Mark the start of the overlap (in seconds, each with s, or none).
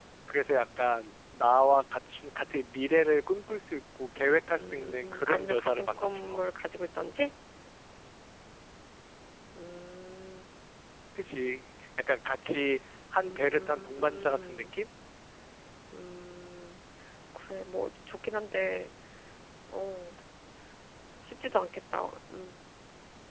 4.6 s